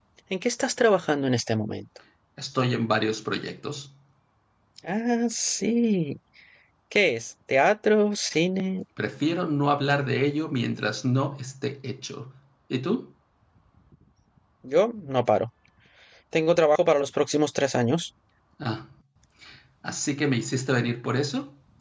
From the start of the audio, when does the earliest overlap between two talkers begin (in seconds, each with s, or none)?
none